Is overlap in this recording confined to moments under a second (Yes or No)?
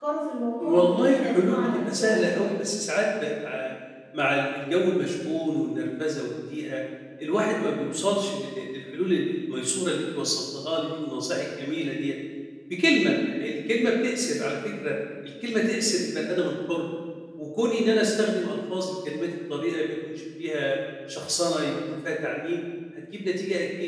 No